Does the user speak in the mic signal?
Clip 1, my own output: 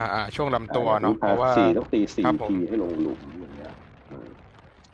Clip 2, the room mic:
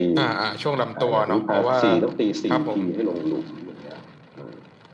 No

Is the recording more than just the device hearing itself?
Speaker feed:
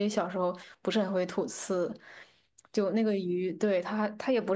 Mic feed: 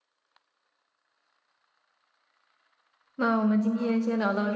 Yes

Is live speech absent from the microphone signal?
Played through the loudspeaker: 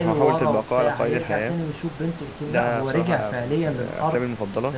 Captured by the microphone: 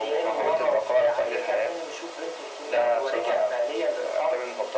Yes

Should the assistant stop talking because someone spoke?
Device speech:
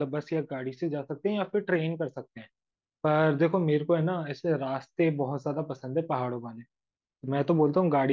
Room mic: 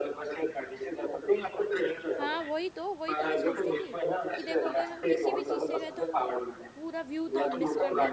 Yes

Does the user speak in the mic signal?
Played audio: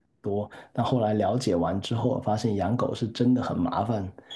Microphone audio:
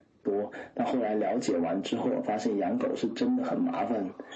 No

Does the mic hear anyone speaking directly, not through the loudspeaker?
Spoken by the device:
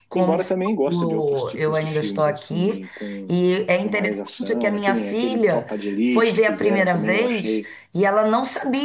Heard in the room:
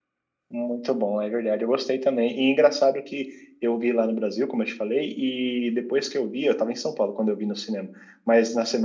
Yes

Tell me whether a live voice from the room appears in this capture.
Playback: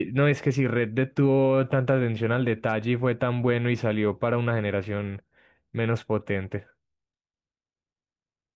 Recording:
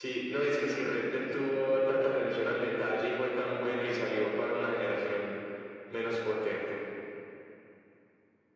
No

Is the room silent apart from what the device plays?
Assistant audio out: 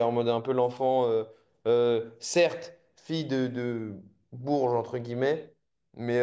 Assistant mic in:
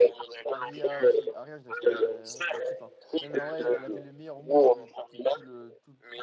No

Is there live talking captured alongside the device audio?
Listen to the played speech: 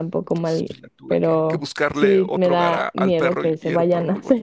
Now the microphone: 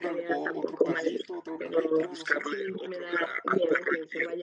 Yes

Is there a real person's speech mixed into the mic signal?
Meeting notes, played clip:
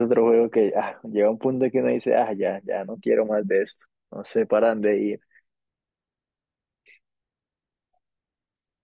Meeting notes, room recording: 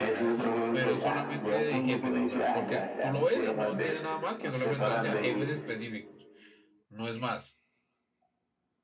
Yes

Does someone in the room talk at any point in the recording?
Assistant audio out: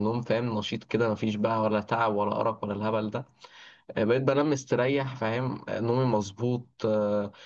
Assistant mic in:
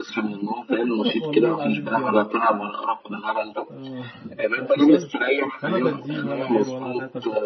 Yes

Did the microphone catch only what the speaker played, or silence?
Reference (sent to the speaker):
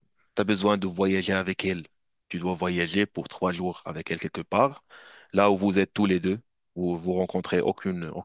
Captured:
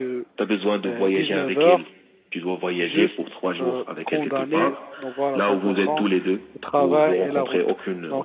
No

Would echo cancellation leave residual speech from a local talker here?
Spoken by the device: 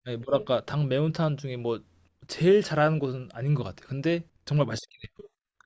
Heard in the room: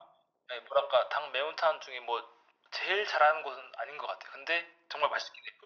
No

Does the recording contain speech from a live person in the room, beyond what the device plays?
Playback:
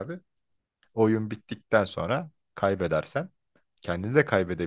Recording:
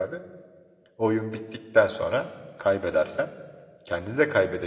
No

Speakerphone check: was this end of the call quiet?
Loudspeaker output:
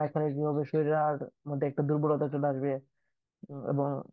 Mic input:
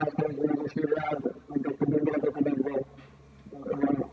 Yes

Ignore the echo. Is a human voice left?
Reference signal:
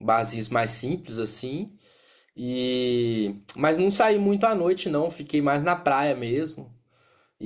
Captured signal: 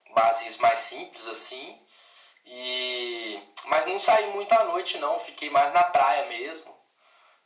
No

